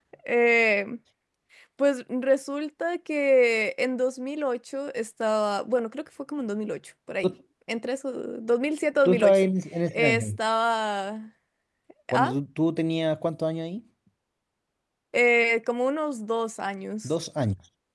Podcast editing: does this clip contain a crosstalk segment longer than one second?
No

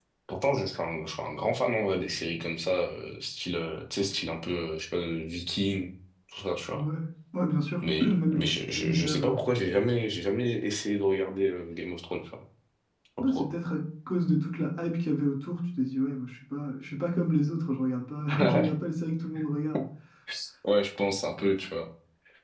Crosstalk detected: Yes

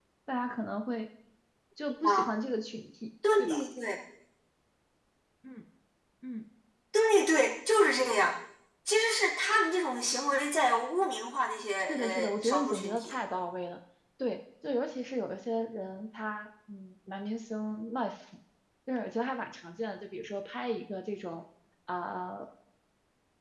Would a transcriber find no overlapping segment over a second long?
No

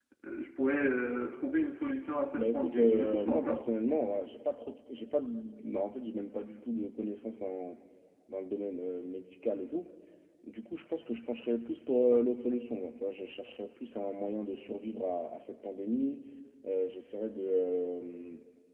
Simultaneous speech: Yes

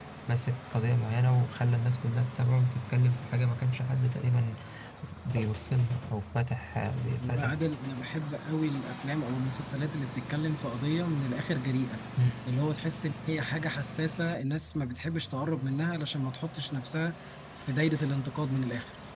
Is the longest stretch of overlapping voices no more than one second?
Yes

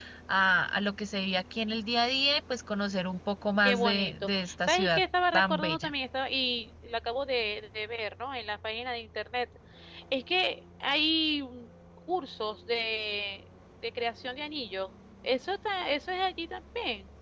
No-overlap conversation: No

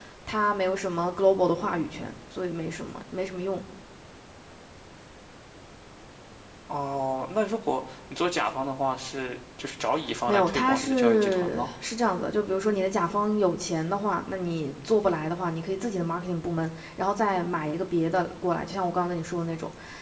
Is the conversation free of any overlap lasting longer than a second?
No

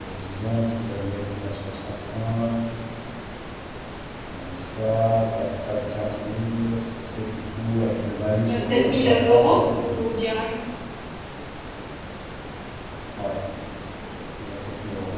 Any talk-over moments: Yes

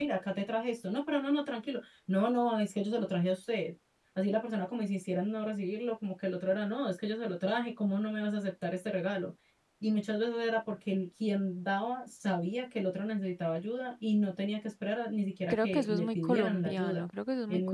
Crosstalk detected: Yes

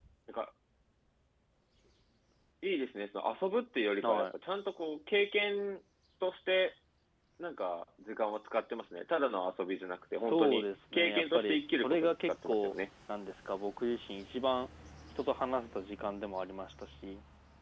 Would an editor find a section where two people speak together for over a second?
Yes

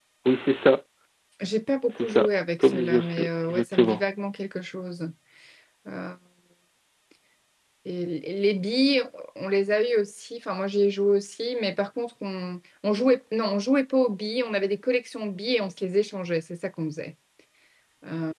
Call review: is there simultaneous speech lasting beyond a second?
Yes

